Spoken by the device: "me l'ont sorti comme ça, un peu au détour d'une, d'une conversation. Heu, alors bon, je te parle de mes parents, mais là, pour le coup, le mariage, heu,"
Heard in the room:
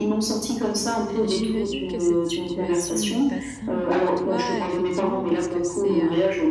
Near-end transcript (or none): Heu, j'imagine que cette situation n'est pas simple pour toi, effectivement, parce que c'est un